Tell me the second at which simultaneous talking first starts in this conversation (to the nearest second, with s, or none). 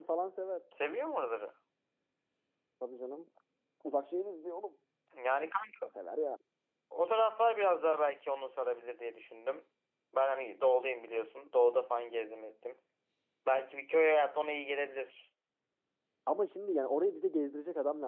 none